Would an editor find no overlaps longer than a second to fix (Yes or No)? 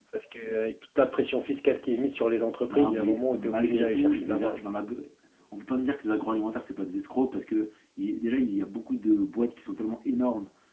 No